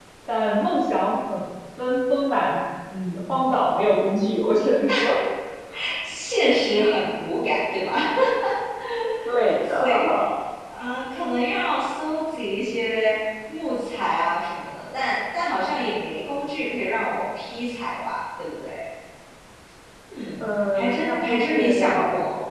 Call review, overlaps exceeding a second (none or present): present